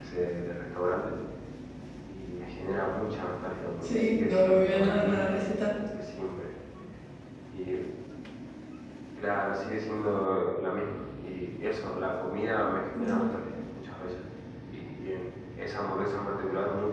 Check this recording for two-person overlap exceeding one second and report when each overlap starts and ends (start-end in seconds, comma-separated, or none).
3.8-5.4